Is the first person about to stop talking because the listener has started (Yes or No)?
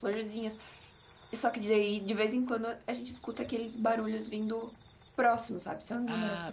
Yes